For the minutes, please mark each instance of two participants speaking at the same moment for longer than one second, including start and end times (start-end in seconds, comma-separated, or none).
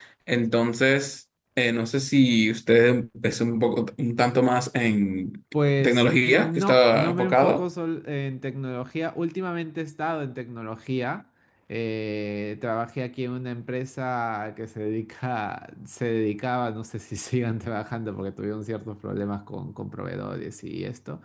5.8-7.7